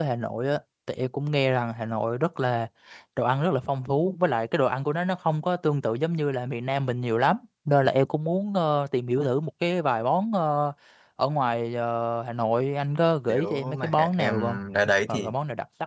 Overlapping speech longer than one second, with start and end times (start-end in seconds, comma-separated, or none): 13.3-14.6